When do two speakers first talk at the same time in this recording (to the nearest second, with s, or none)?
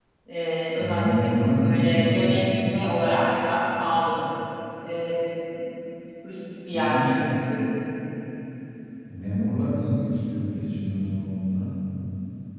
1 s